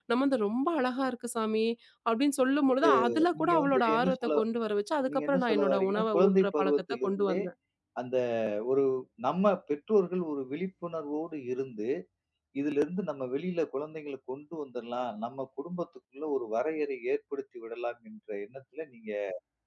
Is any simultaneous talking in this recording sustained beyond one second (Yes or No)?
Yes